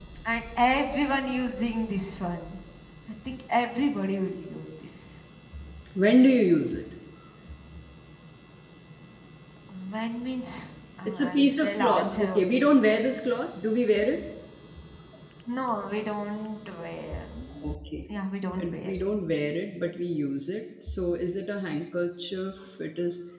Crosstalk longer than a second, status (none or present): present